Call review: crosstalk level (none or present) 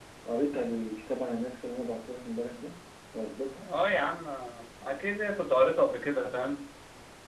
none